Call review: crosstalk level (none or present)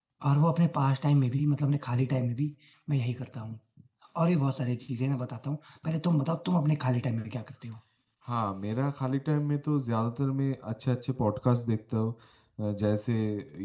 none